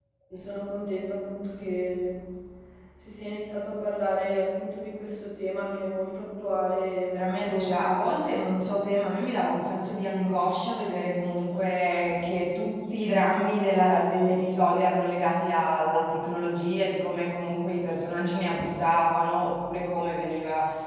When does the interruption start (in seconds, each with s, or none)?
7.1 s